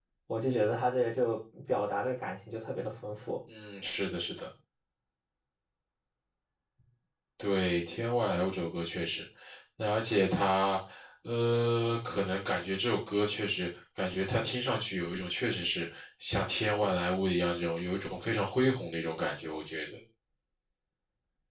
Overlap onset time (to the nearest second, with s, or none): none